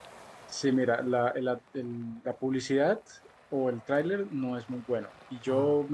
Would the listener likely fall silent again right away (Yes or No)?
Yes